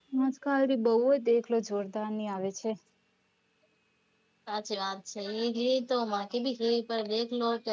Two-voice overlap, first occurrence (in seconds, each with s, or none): none